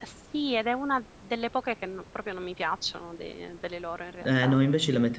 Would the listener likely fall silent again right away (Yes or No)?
No